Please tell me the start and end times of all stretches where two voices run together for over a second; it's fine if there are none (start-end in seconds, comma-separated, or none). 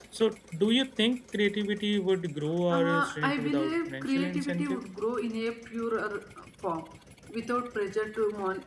2.8-4.8